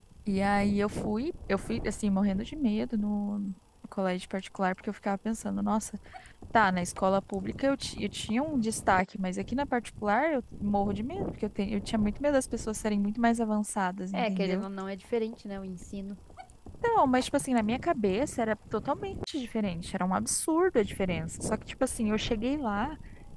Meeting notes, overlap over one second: none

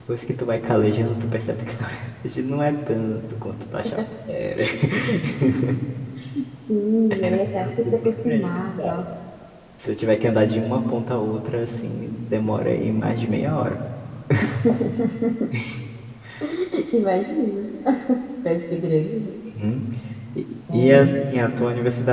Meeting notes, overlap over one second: present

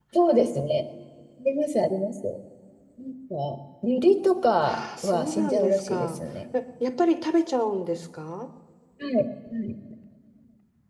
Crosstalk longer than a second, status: present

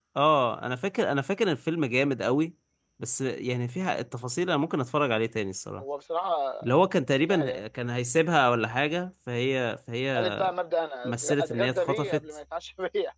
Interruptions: present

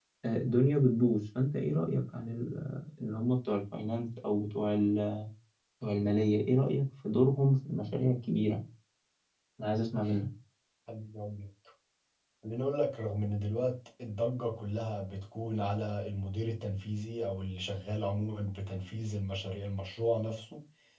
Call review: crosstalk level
none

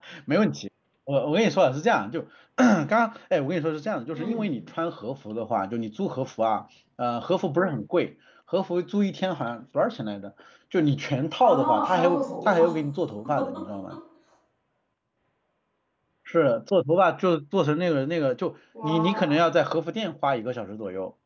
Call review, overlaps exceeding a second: present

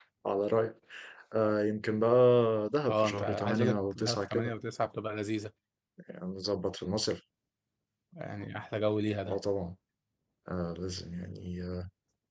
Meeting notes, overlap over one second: present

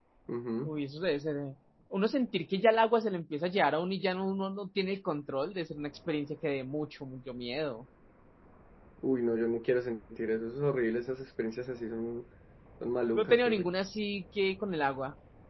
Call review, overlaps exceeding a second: none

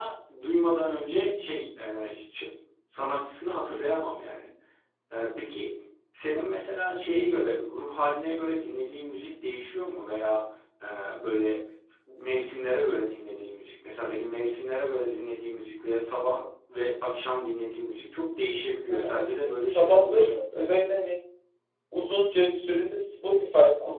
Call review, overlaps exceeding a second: present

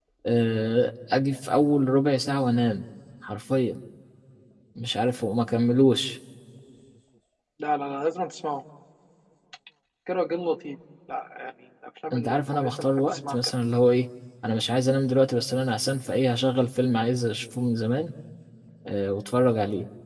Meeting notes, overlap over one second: present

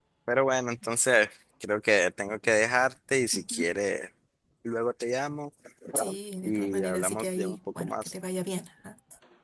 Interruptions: present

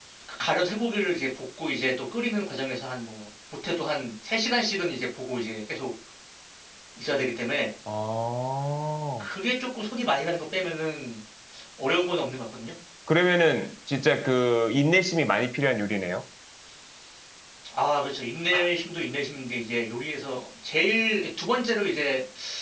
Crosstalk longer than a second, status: none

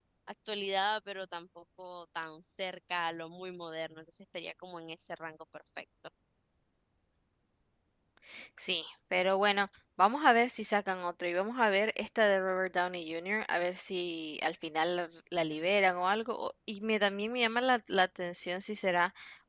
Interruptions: none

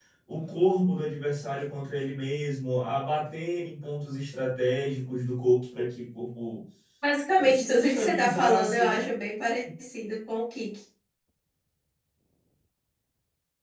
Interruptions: present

